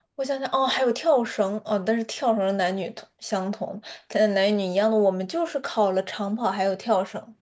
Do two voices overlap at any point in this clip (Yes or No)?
No